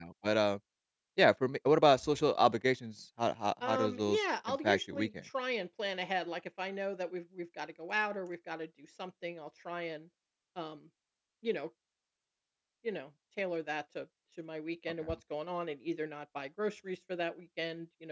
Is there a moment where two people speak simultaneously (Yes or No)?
Yes